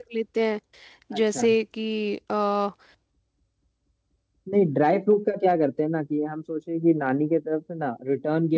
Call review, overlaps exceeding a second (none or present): none